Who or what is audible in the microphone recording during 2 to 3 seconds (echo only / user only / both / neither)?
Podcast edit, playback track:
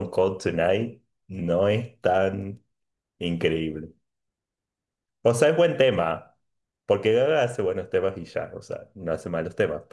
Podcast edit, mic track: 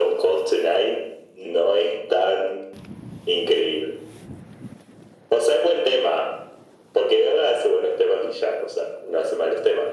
echo only